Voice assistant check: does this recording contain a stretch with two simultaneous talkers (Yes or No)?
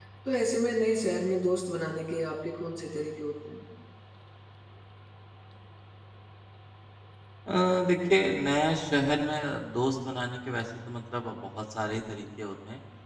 No